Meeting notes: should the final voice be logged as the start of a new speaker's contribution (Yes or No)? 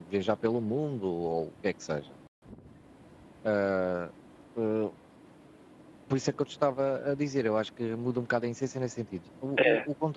No